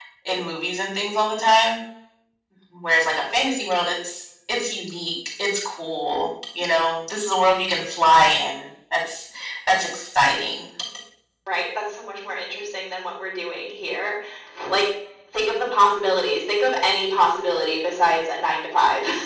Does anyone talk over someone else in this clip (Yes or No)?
No